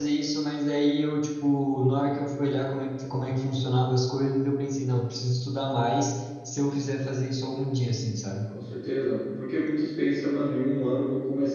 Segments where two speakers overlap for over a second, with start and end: none

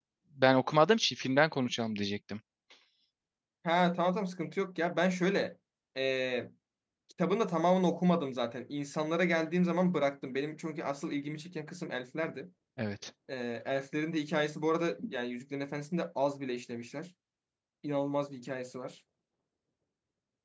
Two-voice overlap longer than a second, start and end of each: none

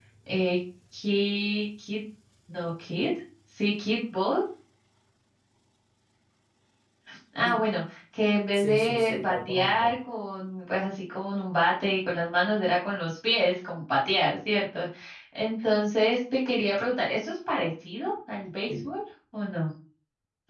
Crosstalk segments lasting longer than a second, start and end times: 8.5-9.9

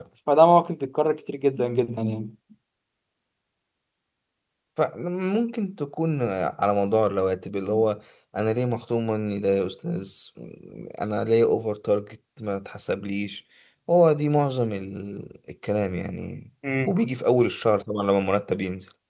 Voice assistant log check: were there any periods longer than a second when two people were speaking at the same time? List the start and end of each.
none

